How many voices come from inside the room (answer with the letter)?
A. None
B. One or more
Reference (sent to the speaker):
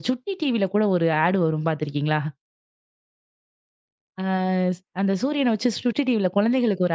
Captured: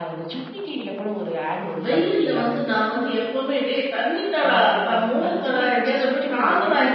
B